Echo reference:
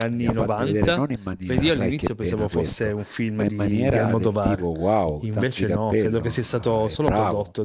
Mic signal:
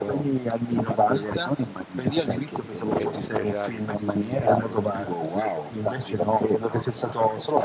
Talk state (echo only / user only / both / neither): both